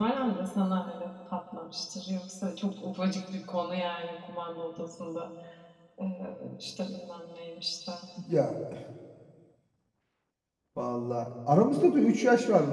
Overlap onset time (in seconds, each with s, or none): none